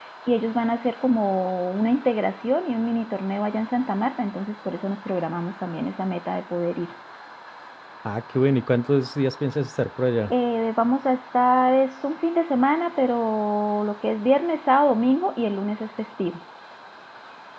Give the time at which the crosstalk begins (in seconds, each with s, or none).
none